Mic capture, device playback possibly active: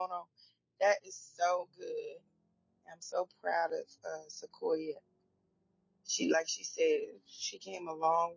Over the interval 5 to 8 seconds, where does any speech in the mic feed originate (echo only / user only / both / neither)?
user only